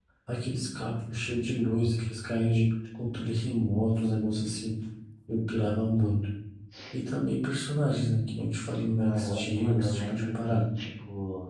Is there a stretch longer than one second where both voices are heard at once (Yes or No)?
Yes